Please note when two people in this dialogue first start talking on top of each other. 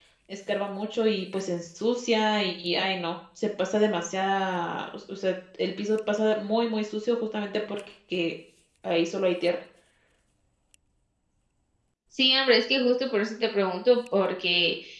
none

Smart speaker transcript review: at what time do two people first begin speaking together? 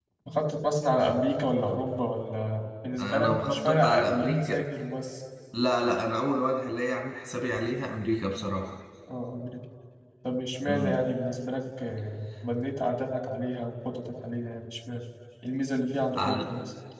3.0 s

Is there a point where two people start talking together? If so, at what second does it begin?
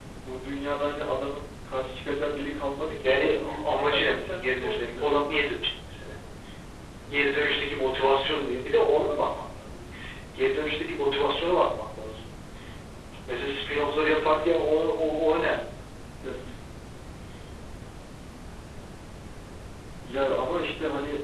3.0 s

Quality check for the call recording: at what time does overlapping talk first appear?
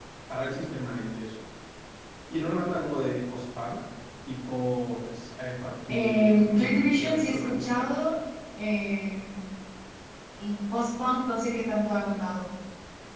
5.9 s

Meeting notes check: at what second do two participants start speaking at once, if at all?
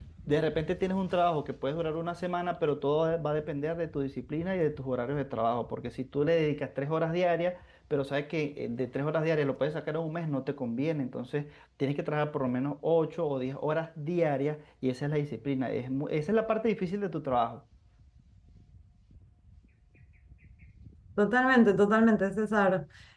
none

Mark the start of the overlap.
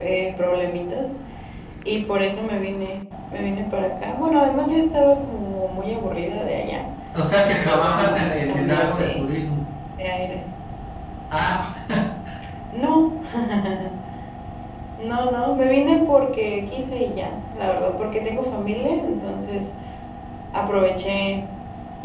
7.4 s

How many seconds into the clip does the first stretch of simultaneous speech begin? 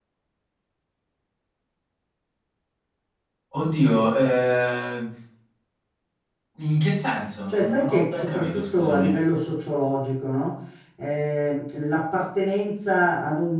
7.5 s

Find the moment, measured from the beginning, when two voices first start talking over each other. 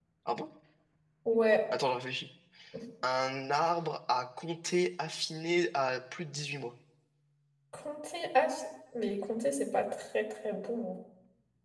none

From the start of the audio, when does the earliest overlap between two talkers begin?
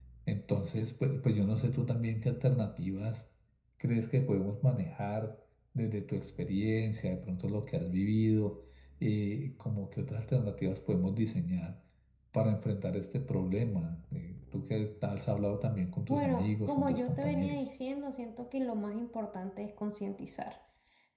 16.1 s

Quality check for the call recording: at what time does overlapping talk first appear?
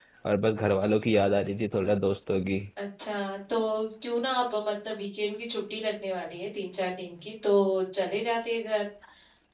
none

